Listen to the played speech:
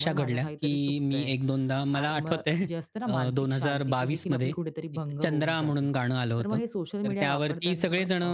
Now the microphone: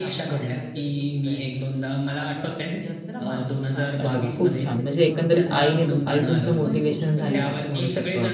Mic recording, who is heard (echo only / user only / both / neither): both